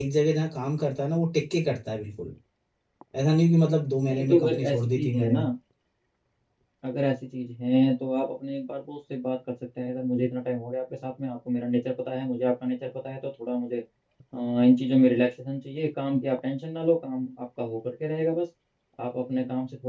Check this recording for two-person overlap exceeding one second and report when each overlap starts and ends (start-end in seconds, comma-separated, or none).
4.1-5.4